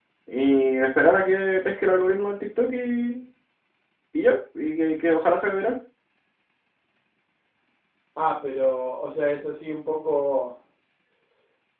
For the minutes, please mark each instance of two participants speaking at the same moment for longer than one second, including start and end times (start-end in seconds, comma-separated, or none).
none